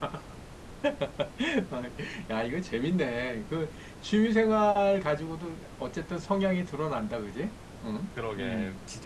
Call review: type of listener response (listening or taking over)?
taking over